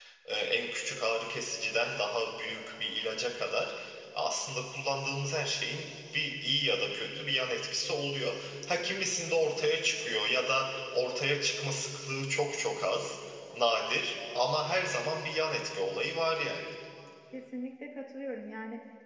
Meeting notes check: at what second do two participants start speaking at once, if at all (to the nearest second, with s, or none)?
none